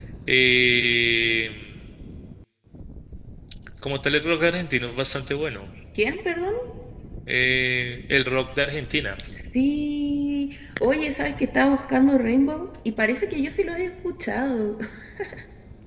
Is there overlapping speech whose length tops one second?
No

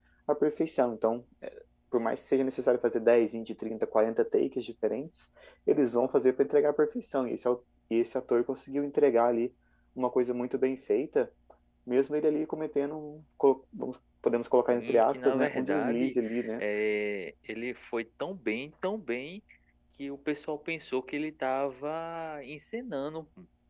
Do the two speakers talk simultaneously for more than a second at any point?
Yes, from 14.7 s

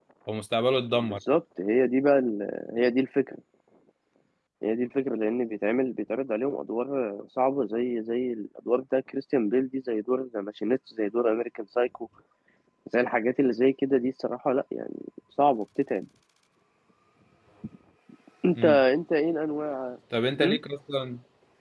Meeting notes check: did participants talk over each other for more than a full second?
No

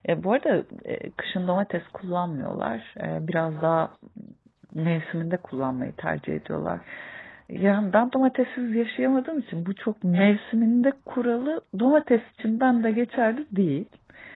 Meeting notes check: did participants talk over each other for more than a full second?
No

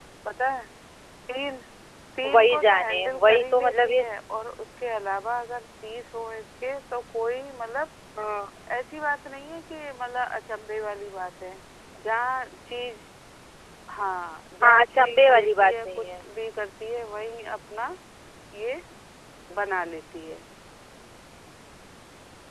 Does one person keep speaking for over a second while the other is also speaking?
Yes, from 2.3 s

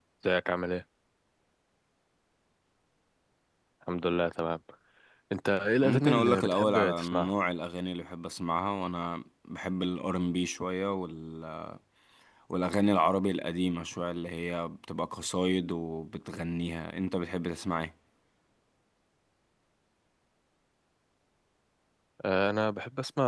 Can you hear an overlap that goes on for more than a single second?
Yes, from 5.8 s

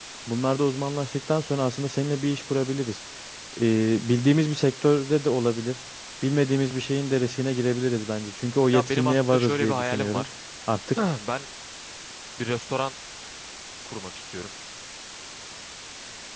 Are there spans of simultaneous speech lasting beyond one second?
Yes, from 8.7 s

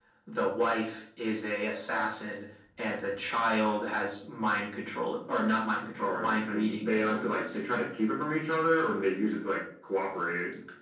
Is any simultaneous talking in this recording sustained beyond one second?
Yes, from 6.0 s

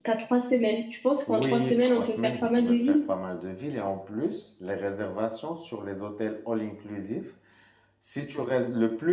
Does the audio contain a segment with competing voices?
Yes, from 1.3 s

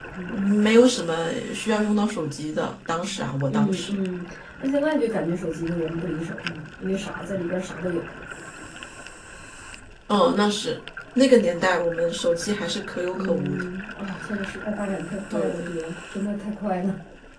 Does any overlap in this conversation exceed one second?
No

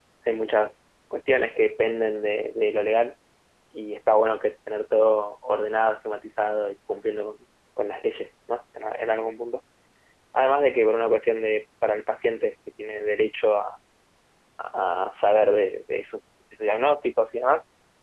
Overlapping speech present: No

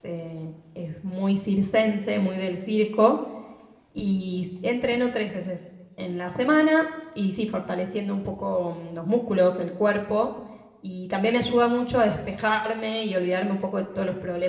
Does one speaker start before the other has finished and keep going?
No

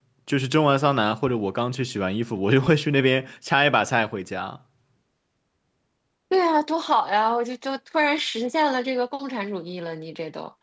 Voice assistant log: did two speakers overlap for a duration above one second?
No

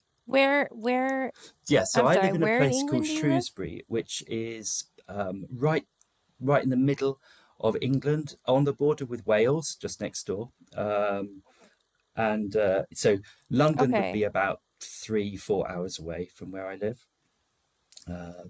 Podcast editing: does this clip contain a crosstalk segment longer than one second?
Yes, from 1.9 s

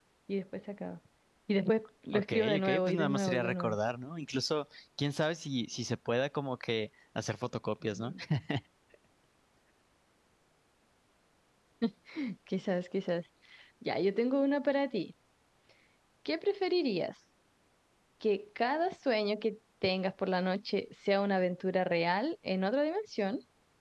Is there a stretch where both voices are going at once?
Yes, from 2.1 s

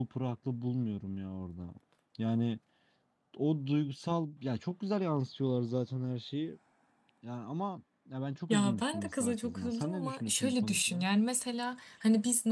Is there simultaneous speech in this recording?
Yes, from 8.5 s

